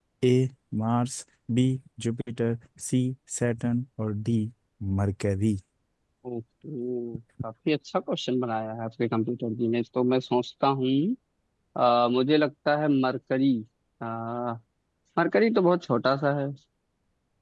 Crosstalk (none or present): none